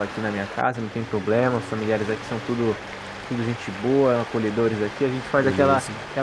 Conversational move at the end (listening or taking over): listening